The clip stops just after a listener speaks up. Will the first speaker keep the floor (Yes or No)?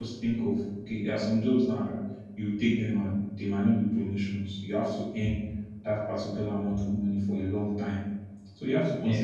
Yes